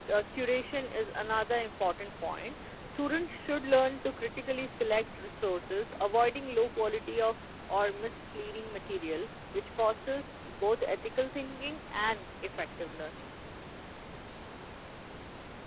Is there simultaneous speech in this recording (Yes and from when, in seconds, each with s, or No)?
No